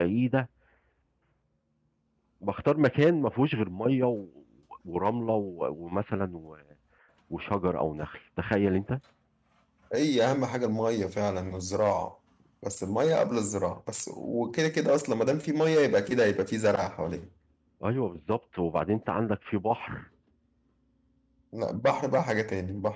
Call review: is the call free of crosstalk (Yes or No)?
Yes